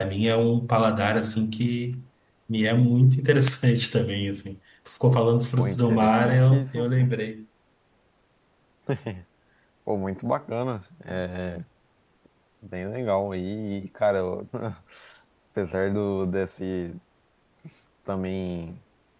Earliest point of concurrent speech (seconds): 5.5 s

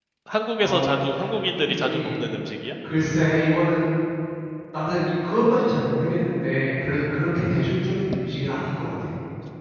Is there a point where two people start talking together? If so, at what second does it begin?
0.6 s

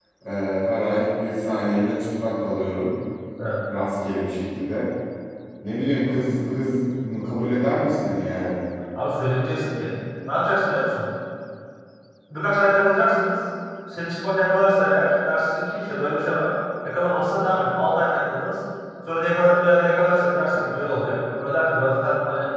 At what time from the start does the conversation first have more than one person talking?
none

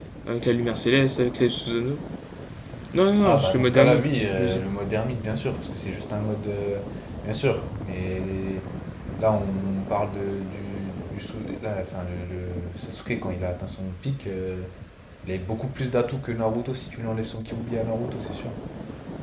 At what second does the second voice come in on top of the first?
3.2 s

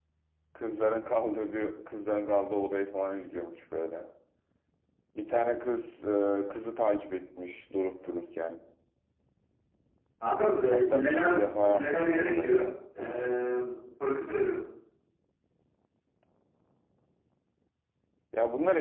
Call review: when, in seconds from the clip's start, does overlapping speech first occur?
10.7 s

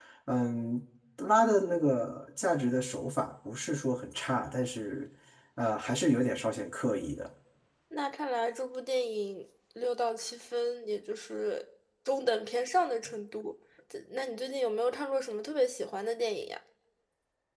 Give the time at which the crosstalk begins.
none

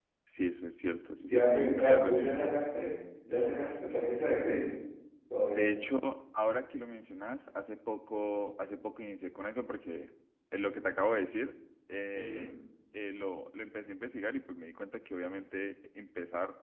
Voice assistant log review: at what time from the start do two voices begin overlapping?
1.2 s

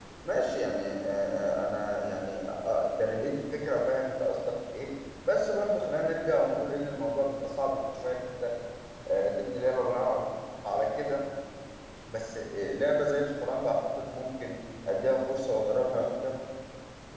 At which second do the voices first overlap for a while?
none

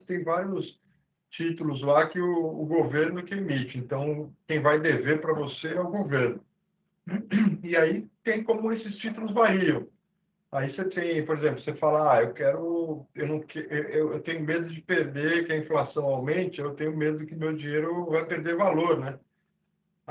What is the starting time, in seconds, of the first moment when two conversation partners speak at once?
none

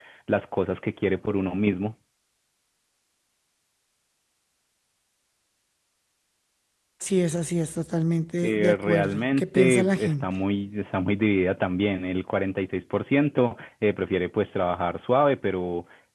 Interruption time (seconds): 8.4 s

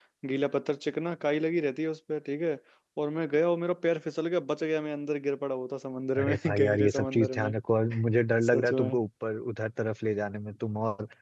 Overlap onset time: 6.2 s

